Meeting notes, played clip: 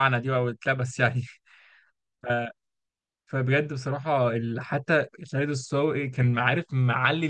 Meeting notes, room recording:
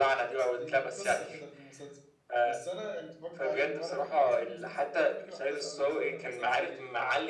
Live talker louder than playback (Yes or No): No